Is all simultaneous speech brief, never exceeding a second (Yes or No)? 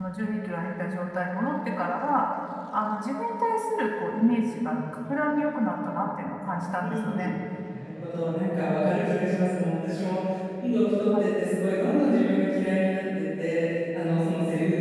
Yes